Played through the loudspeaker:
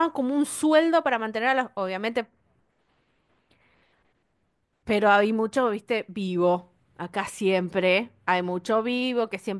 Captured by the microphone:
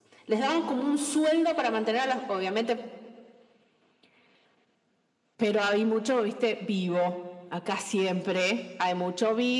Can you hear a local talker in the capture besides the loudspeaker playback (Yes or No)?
No